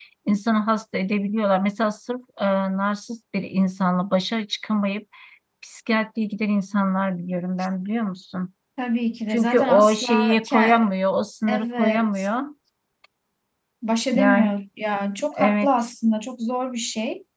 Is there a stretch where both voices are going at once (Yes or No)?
Yes